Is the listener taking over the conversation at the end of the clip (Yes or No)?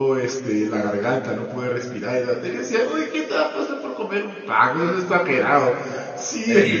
No